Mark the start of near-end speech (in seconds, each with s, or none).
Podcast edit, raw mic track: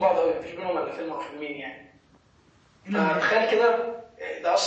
2.9 s